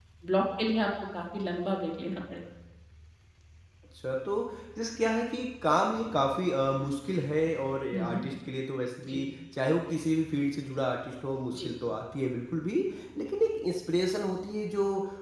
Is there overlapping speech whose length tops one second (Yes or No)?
No